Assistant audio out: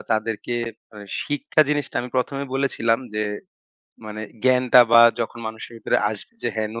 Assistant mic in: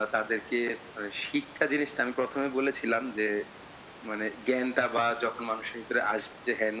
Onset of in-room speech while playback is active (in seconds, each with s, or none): none